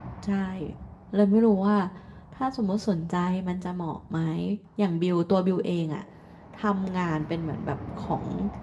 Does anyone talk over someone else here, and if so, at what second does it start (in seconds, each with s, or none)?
none